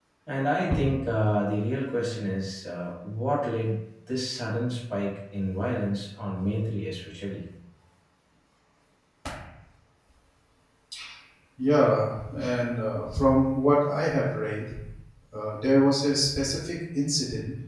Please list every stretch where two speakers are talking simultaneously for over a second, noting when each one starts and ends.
none

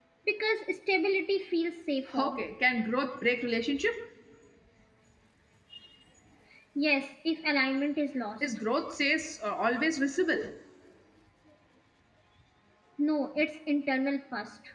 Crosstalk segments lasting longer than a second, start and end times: none

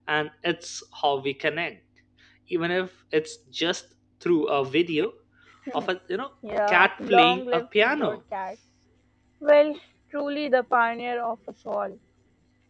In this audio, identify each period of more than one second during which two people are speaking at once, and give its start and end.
6.7-8.2

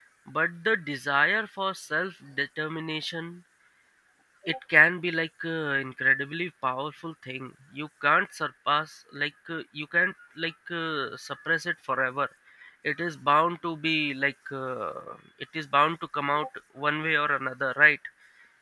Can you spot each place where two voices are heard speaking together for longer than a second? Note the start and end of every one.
none

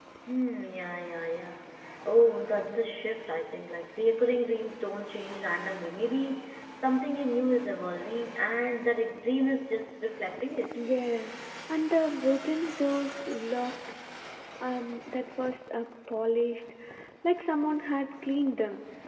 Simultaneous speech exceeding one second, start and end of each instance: none

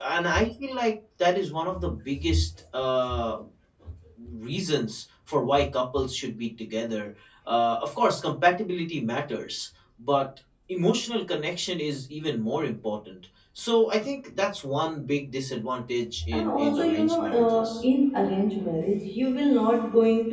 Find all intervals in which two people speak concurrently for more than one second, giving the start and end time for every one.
16.3-17.8

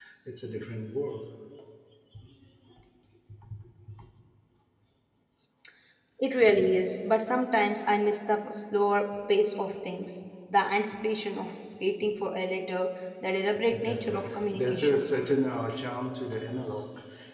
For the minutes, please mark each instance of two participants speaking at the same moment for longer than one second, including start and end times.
13.7-15.0

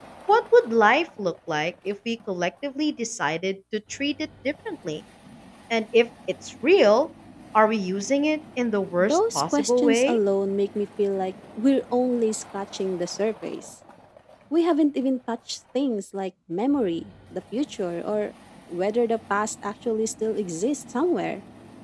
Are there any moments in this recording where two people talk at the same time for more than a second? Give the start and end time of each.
9.0-10.2

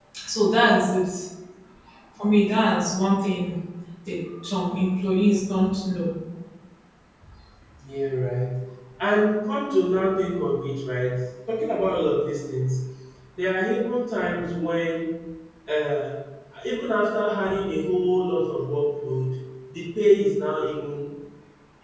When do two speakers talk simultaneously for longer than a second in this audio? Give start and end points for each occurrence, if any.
none

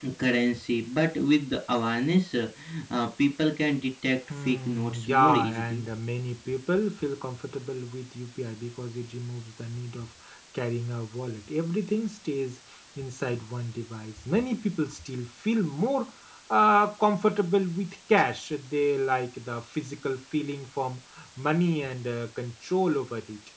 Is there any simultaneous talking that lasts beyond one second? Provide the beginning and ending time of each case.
4.5-5.8

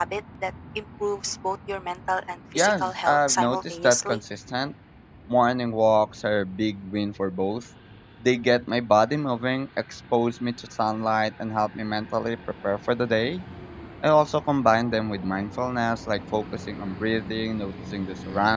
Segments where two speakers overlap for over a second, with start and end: 2.6-4.2

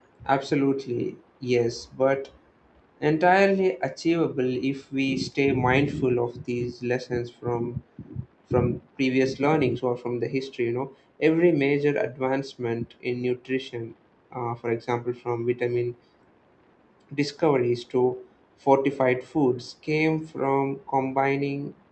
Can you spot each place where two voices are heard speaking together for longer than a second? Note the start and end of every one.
none

